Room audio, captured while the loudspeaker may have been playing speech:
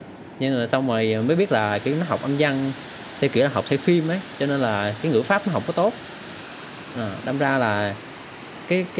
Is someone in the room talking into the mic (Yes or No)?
Yes